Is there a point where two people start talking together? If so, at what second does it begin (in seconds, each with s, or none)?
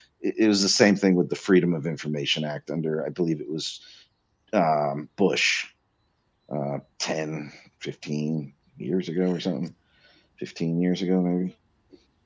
none